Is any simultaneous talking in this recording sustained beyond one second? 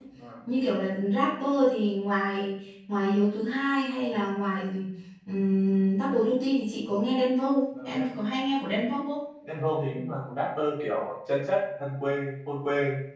No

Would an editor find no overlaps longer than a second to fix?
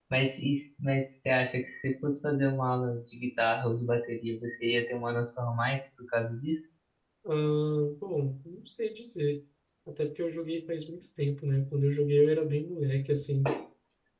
Yes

